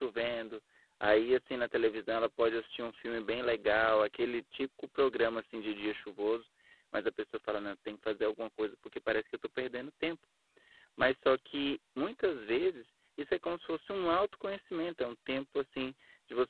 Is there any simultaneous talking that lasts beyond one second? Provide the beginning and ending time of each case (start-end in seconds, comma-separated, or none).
none